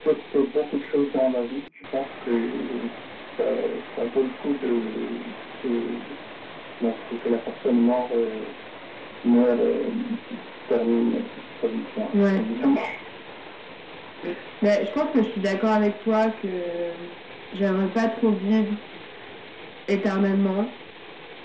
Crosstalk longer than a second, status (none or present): none